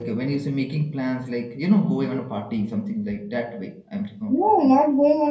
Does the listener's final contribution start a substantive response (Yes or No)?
Yes